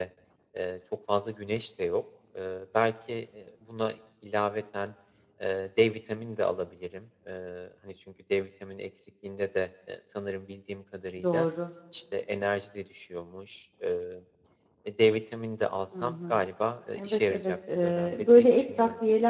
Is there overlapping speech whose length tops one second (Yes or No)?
Yes